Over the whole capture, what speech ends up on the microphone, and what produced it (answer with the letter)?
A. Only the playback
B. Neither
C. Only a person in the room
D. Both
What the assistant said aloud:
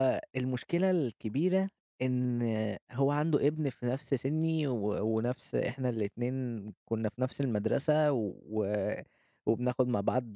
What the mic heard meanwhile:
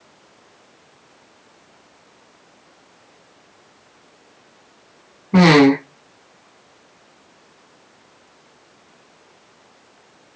C